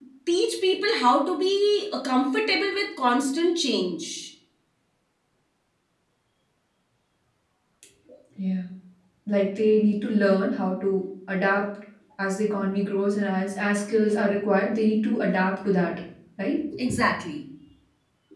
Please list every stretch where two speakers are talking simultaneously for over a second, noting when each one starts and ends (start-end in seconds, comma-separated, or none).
none